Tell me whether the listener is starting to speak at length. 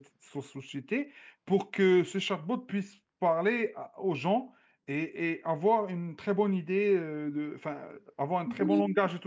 Yes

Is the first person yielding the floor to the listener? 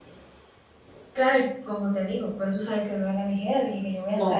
Yes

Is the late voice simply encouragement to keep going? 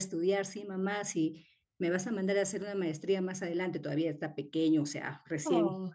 Yes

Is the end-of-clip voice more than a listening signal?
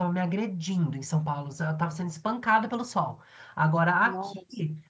No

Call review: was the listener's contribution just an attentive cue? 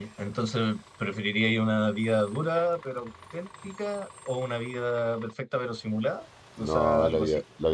No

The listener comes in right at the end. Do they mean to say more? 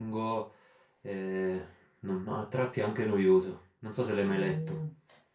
Yes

